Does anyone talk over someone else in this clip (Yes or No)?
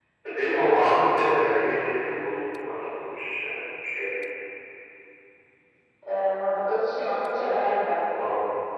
No